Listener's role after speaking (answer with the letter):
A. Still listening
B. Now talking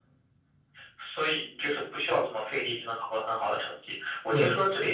A